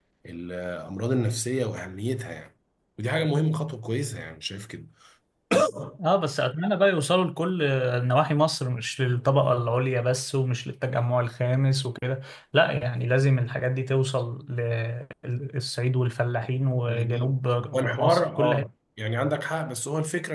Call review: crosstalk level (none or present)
present